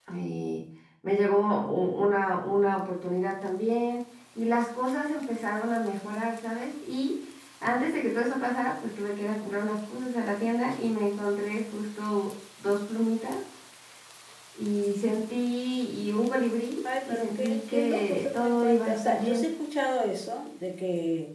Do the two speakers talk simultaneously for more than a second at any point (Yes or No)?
Yes